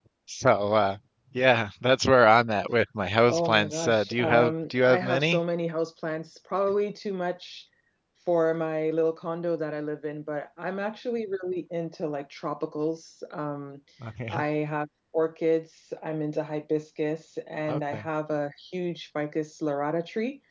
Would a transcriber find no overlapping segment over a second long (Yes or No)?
No